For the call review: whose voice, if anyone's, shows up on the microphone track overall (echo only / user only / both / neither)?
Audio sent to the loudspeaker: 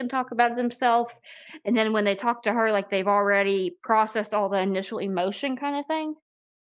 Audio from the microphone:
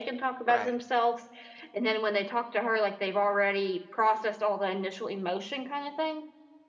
both